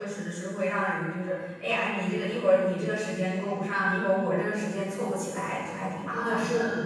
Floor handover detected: Yes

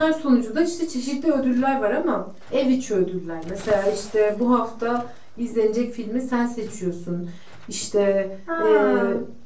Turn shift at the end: No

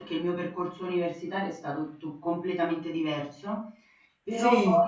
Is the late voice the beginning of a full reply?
No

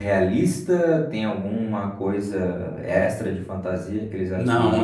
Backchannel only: No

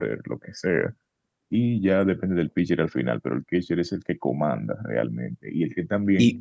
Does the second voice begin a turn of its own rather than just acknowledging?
No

